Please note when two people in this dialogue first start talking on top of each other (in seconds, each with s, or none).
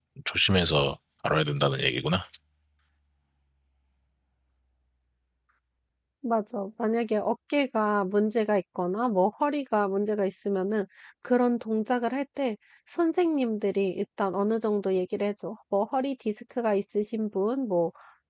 none